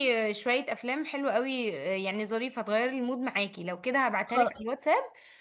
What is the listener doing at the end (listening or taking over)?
listening